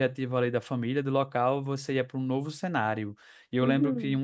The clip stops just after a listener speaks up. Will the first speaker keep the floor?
Yes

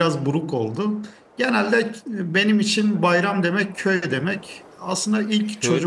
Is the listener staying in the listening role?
Yes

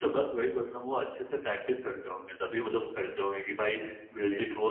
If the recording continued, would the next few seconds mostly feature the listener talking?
No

